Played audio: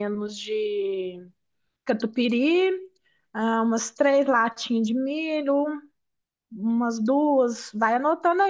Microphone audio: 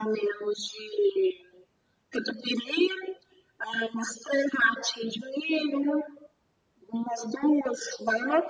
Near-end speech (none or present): none